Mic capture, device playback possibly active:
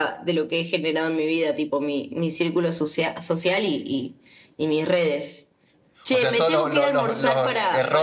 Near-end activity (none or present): present